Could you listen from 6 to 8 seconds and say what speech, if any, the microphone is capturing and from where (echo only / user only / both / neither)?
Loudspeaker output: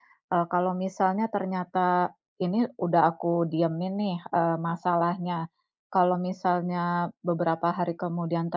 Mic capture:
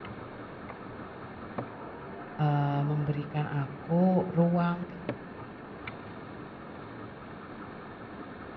neither